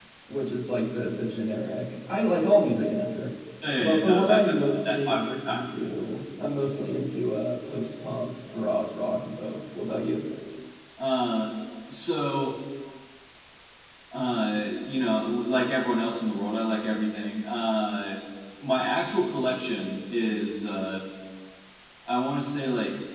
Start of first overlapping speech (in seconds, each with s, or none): 3.8 s